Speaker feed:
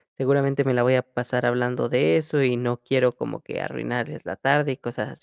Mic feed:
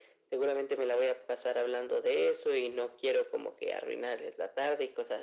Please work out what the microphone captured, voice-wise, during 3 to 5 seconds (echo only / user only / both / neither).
echo only